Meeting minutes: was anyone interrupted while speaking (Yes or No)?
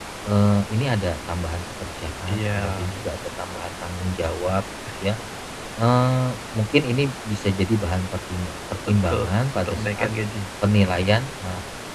Yes